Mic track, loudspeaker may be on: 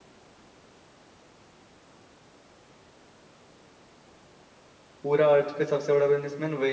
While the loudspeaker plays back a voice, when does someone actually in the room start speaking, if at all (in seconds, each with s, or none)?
5.0 s